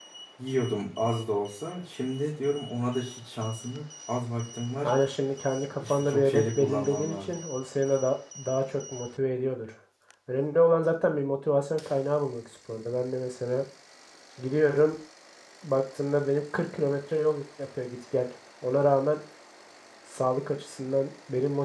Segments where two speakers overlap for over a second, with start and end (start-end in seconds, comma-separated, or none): 5.8-7.3